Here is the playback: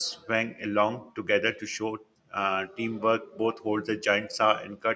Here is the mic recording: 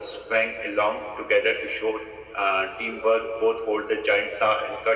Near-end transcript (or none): none